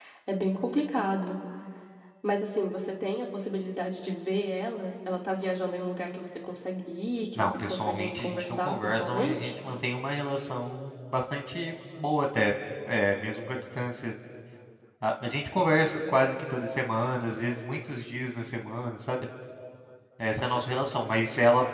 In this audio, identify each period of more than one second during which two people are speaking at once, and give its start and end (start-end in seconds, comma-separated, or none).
7.4-9.5